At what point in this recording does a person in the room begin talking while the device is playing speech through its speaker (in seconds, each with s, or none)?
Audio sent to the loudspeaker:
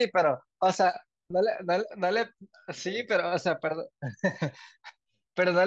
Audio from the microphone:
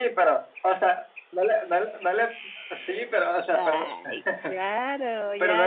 3.5 s